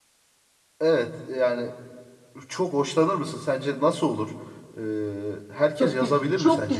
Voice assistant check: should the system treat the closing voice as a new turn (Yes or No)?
Yes